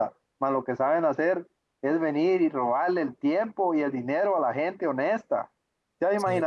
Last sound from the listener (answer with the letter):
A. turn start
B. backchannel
B